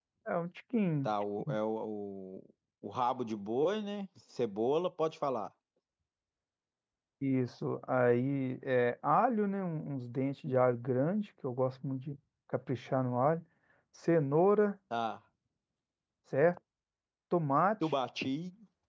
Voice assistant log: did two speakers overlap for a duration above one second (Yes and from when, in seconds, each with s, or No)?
No